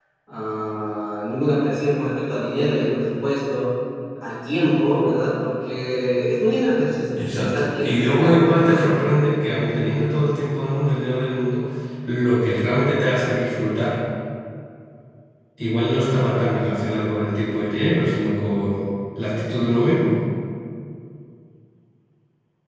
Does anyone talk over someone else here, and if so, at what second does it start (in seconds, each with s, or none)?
7.2 s